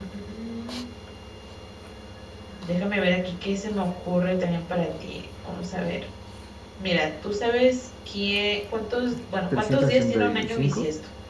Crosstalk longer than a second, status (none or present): present